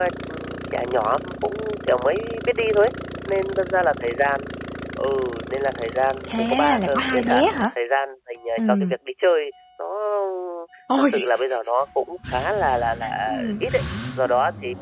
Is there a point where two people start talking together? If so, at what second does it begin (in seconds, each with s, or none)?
6.3 s